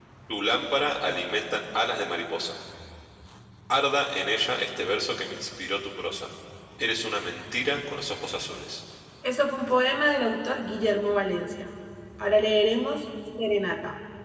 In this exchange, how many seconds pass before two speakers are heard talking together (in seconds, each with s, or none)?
none